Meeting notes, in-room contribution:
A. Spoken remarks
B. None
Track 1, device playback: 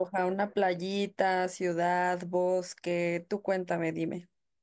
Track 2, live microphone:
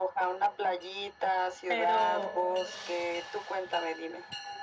A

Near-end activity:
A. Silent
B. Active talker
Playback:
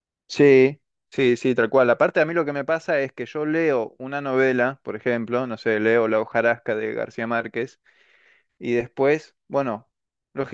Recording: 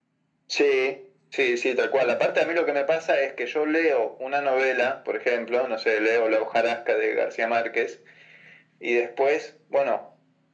A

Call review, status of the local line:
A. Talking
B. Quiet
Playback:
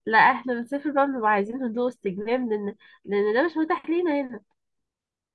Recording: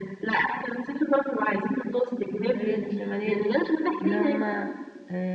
A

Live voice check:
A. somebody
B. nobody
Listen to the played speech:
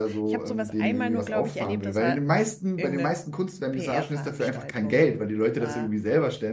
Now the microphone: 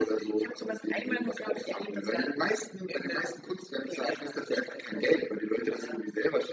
B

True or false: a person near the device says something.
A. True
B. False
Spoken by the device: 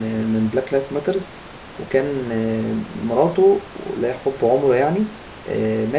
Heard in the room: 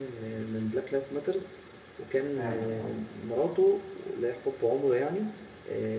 A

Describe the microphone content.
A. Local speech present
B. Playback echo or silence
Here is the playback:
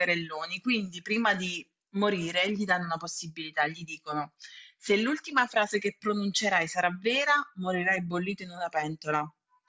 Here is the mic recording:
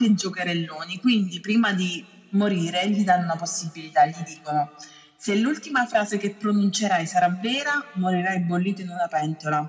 B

